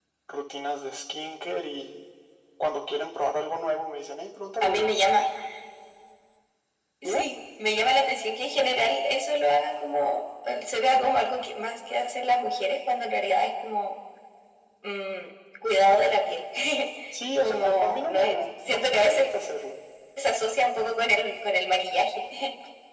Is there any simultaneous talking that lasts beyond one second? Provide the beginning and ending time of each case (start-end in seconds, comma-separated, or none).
17.4-19.3